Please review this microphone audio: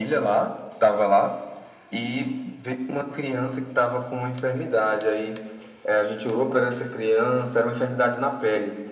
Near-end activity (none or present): none